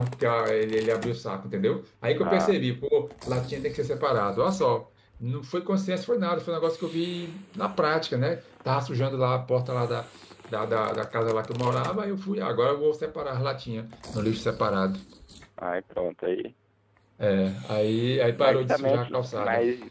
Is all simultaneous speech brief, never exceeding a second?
No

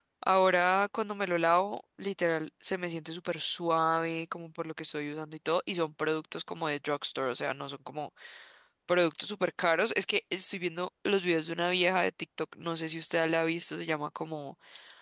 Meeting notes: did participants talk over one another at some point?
No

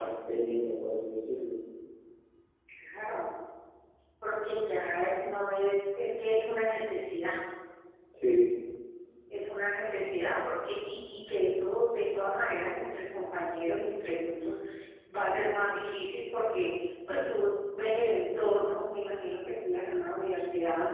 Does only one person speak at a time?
Yes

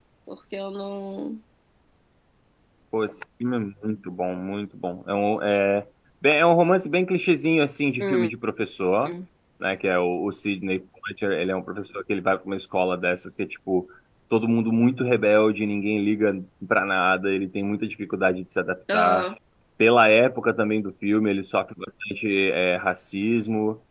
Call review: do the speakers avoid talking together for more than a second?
Yes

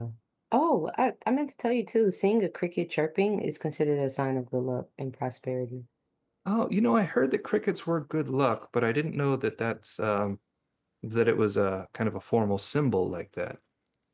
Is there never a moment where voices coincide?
Yes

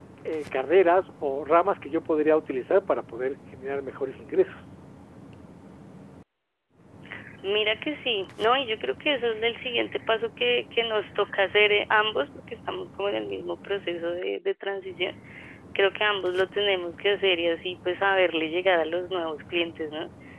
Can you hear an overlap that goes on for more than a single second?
No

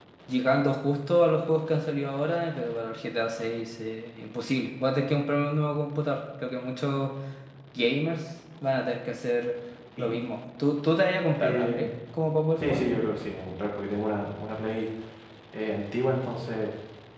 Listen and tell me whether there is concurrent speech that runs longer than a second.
No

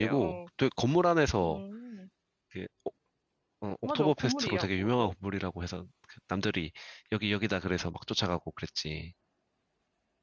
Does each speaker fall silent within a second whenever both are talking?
No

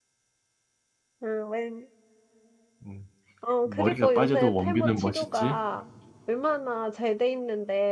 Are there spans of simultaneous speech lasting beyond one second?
Yes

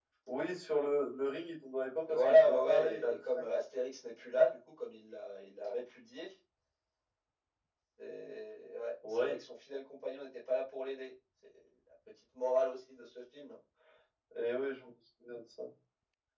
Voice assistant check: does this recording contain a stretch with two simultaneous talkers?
Yes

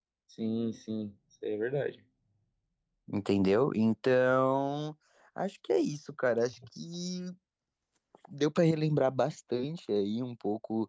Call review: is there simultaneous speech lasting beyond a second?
No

